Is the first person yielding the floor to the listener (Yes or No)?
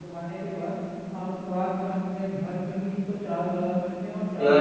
Yes